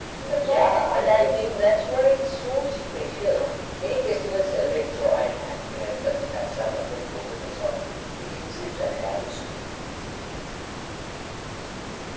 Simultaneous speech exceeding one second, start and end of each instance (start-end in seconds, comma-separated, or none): 0.5-1.8